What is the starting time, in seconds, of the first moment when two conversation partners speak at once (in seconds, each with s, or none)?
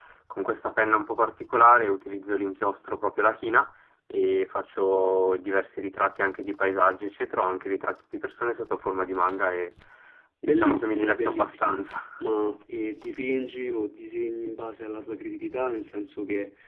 10.4 s